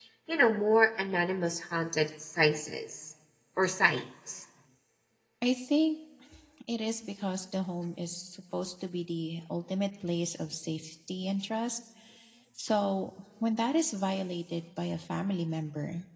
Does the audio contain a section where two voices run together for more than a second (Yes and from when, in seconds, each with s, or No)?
No